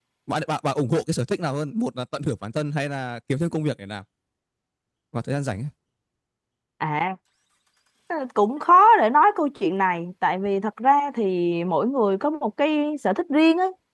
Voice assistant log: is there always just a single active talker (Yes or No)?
Yes